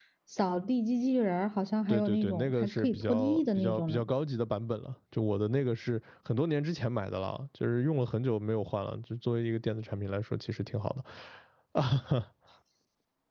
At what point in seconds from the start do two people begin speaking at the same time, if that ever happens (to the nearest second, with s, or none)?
2 s